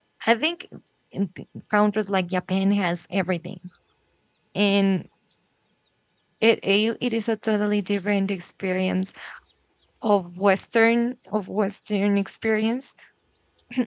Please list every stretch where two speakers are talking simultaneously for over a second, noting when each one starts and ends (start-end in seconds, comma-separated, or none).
none